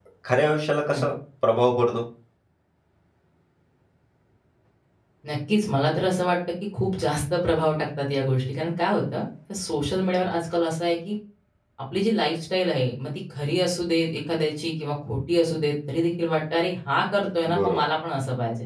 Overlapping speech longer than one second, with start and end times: none

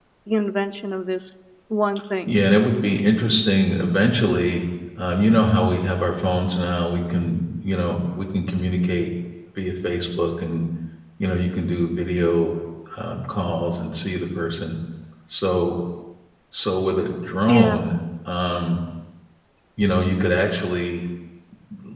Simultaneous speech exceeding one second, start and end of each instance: none

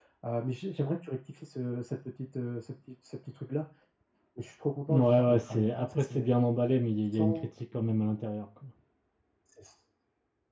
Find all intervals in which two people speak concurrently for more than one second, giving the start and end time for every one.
4.9-6.3

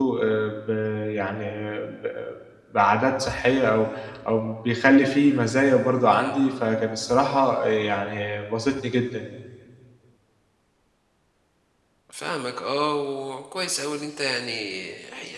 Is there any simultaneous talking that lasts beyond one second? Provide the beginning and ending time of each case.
none

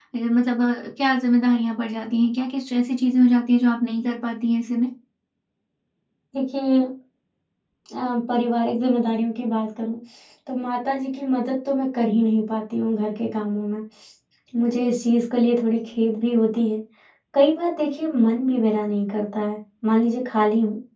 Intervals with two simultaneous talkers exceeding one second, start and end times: none

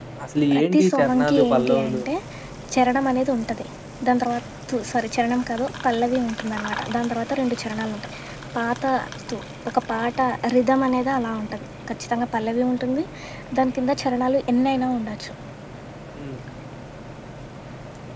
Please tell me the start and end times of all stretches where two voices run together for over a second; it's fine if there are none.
0.5-2.0

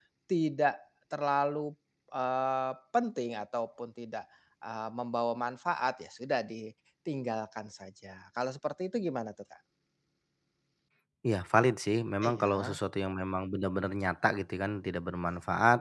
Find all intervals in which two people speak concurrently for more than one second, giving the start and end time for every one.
none

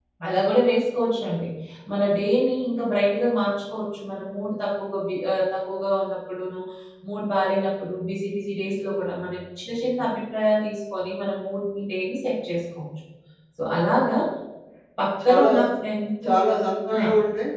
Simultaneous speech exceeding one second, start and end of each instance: none

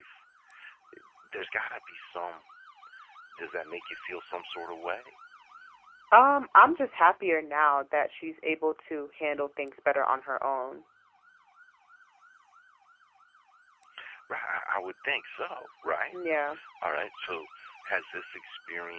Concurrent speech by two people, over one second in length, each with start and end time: none

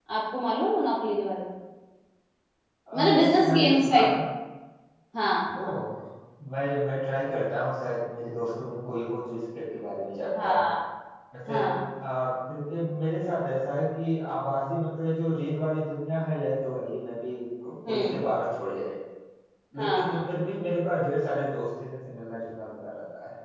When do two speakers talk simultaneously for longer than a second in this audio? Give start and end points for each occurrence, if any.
2.9-4.2

